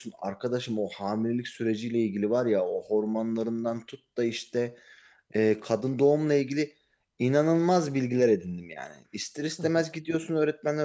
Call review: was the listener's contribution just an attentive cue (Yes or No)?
Yes